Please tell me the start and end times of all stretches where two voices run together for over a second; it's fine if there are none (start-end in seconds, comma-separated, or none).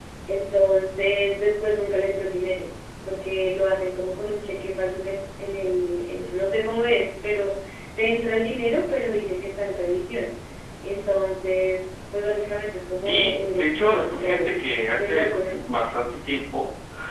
13.0-14.6